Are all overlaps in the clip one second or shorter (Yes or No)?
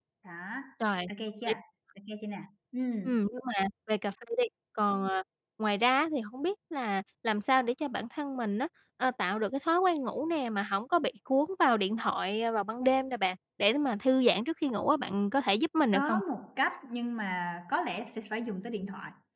Yes